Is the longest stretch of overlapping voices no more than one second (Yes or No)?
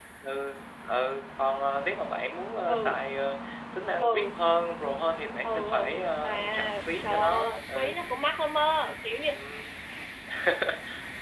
No